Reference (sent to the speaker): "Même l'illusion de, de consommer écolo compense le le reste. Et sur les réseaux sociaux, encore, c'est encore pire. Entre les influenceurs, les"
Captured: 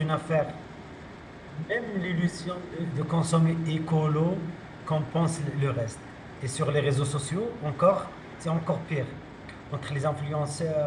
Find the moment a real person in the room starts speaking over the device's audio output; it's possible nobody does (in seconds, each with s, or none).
none